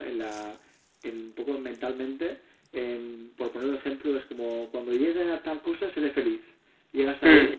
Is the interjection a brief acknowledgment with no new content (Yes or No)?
Yes